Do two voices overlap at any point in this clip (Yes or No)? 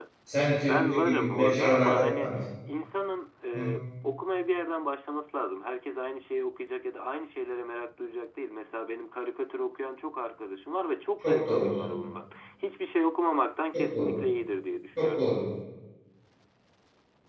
Yes